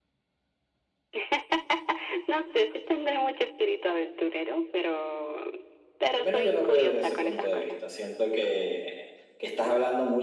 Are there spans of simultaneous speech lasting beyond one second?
Yes, from 6.1 s

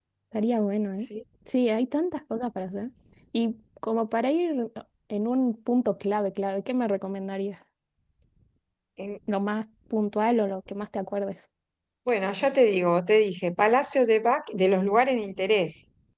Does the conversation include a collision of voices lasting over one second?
No

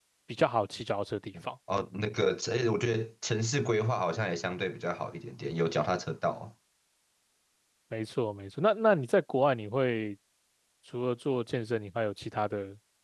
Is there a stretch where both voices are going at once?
No

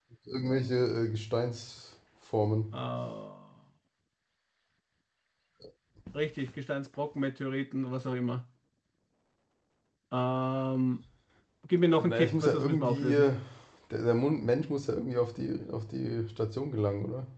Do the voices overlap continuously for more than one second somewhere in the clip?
Yes, from 11.9 s

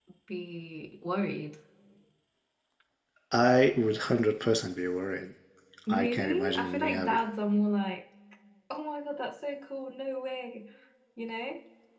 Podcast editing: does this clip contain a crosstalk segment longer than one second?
Yes, from 5.9 s

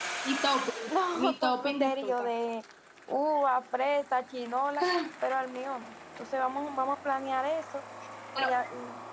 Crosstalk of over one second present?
Yes, from 0.9 s

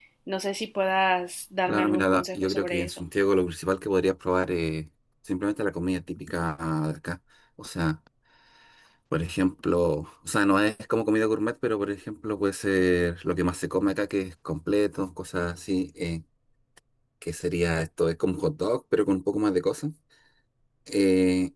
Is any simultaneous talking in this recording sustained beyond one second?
Yes, from 1.7 s

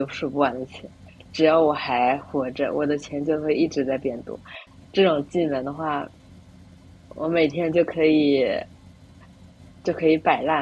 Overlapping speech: No

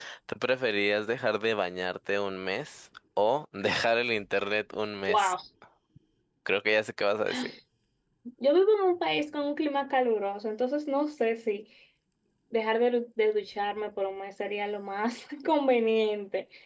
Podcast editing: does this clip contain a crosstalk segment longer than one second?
No

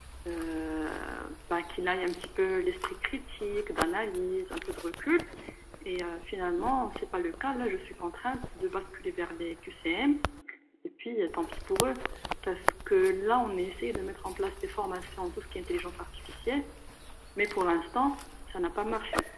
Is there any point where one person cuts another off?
No

